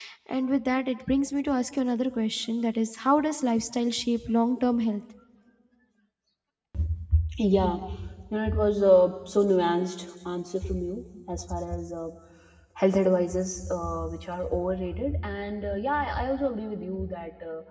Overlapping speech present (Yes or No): No